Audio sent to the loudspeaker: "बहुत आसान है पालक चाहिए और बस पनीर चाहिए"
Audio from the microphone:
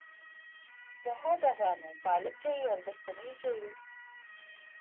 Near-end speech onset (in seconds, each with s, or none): none